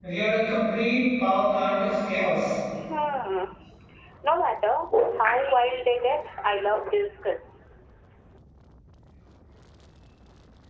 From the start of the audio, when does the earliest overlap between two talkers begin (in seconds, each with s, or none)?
none